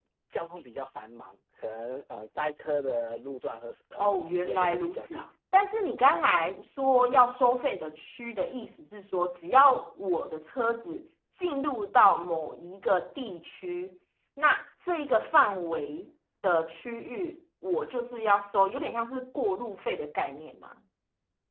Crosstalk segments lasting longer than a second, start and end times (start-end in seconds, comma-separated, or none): 4.0-5.3